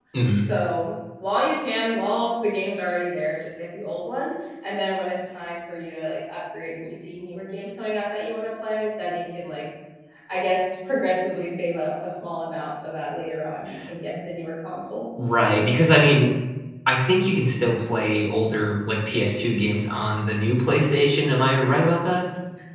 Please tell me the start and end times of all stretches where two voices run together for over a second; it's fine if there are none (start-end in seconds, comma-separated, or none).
none